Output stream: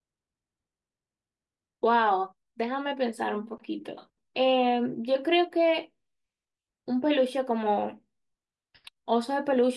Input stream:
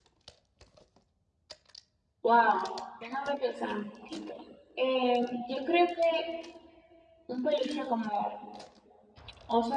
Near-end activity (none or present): none